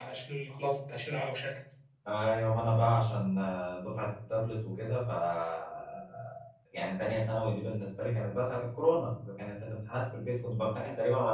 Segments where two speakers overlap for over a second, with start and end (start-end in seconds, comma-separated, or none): none